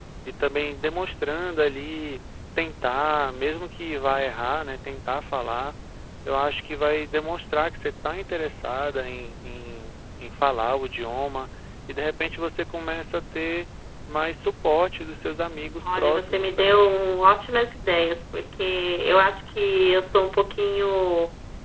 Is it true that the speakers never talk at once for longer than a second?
No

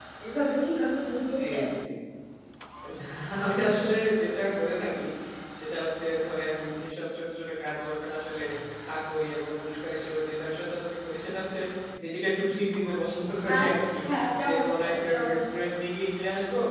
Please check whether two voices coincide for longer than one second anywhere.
Yes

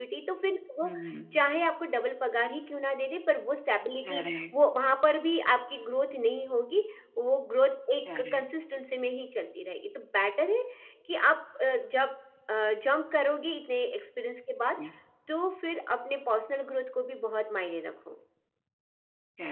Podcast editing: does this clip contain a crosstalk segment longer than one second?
No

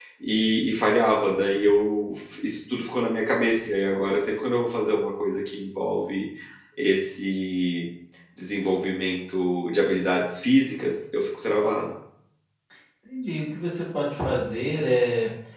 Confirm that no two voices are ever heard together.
Yes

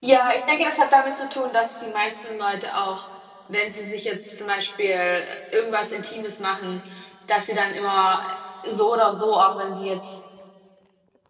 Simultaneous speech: No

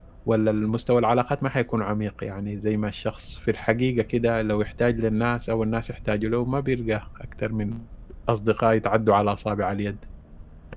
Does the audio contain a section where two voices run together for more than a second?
No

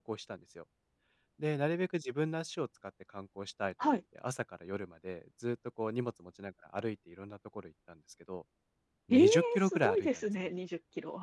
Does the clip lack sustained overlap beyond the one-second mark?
No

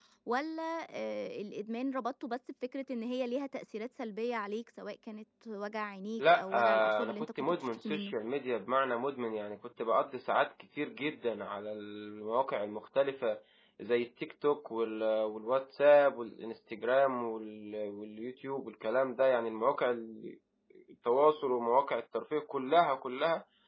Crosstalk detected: Yes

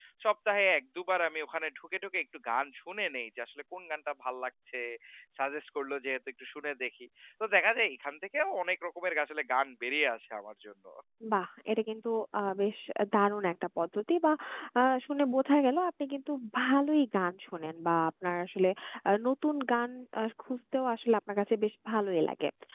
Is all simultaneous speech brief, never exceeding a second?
Yes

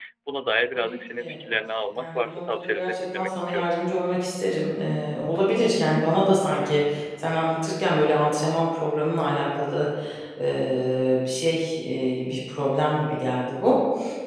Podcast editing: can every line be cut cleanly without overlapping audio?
No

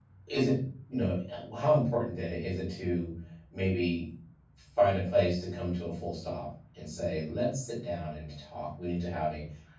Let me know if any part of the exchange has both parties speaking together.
No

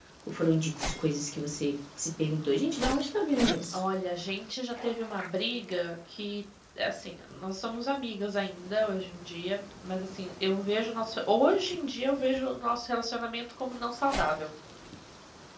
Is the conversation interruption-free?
Yes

